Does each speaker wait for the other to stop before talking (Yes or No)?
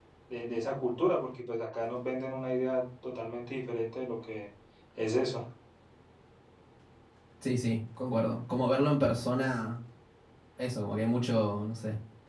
Yes